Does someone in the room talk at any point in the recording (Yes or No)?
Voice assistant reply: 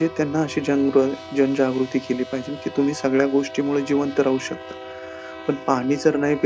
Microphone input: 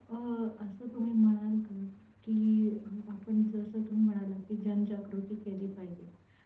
Yes